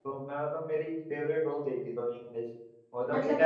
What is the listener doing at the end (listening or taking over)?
taking over